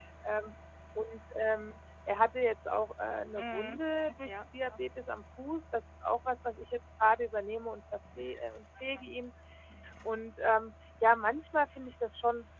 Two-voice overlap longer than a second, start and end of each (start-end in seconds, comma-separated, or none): 3.4-4.8